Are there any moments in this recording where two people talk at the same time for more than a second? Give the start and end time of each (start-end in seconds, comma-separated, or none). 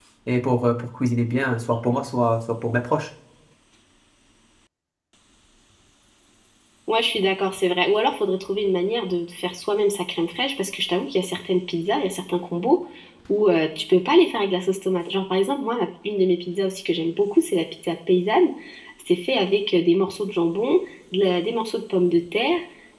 none